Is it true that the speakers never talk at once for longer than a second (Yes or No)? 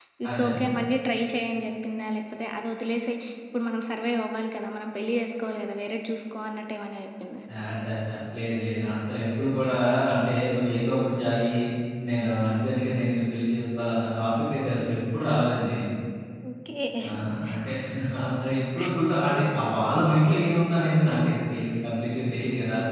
Yes